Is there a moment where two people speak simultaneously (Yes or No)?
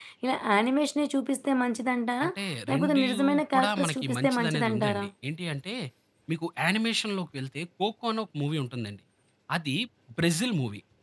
Yes